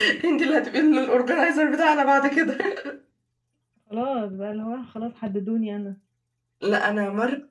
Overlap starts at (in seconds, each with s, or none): none